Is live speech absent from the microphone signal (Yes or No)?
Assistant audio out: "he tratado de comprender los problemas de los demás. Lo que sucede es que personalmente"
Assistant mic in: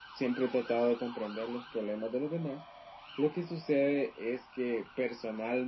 Yes